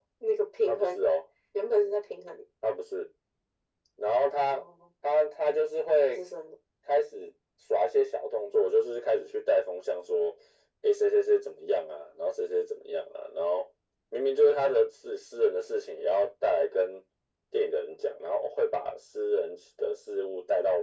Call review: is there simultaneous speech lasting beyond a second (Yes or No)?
No